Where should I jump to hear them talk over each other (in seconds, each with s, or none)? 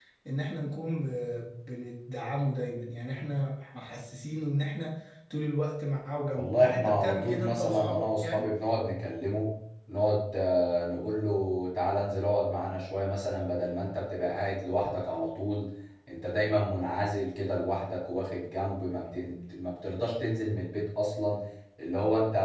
6.3 s